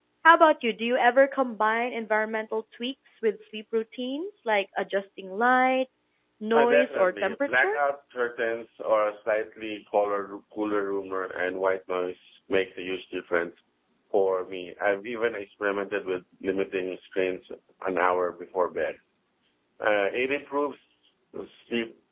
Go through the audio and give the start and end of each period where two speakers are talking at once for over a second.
6.5-7.8

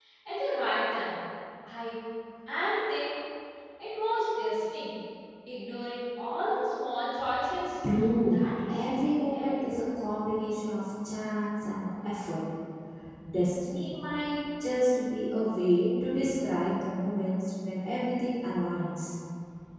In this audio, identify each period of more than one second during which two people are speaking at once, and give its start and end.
8.2-9.6

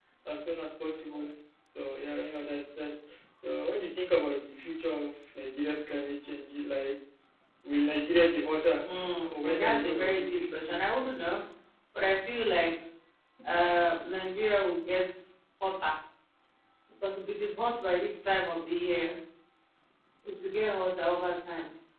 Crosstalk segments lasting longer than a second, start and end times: 9.2-10.8

